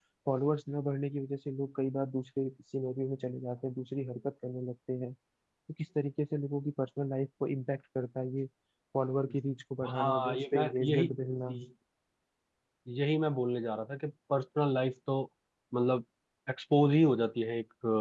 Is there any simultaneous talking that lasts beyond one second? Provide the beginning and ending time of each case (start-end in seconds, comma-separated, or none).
9.9-11.1